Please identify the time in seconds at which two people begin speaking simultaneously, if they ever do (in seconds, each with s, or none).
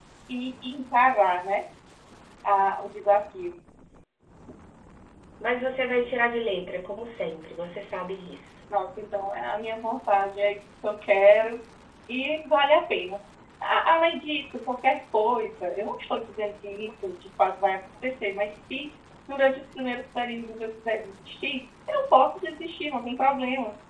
none